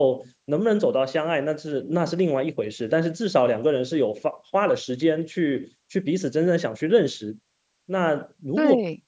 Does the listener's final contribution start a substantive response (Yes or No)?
No